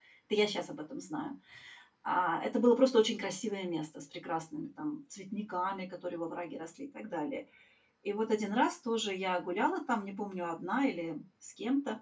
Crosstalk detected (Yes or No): No